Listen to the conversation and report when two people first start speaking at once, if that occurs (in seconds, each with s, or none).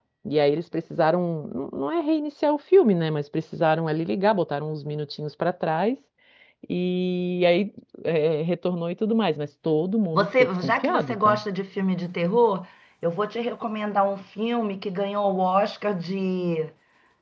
10.1 s